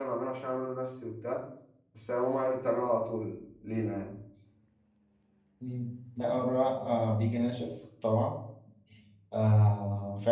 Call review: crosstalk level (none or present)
none